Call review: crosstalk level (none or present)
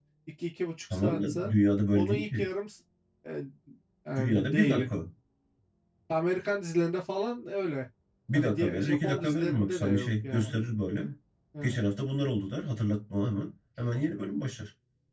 present